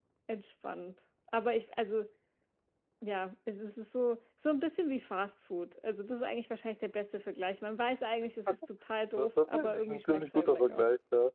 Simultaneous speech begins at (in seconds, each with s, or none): 9.2 s